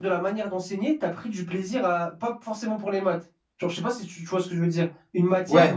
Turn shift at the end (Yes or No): No